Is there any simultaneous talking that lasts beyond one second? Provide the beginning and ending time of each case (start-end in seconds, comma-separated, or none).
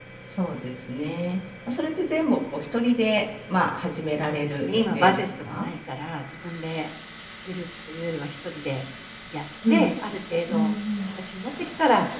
4.2-5.7